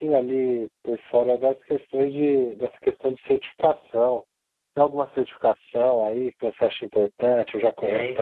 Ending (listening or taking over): taking over